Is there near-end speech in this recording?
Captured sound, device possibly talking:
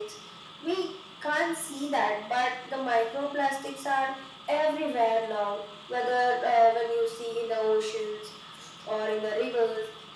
No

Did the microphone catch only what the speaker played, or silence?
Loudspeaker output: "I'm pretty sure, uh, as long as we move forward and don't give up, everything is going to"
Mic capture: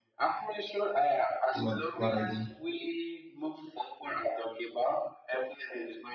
No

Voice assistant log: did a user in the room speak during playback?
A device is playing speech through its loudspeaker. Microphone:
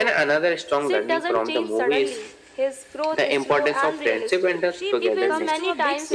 Yes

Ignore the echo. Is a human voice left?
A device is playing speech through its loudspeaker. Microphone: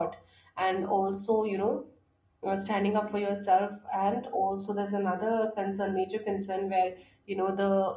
Yes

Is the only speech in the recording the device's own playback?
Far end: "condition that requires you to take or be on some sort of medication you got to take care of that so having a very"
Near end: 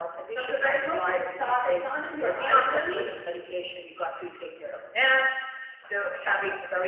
No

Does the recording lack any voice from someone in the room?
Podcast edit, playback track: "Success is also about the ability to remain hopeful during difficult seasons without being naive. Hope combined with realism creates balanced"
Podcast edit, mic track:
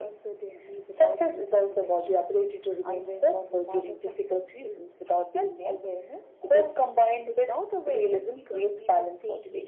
No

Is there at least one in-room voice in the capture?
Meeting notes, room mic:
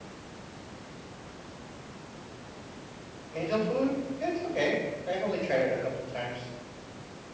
Yes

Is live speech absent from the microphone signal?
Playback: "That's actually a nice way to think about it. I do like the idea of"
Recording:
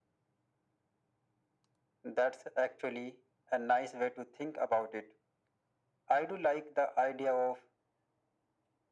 Yes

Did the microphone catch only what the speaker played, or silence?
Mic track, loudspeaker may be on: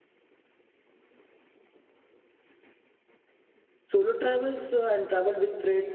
No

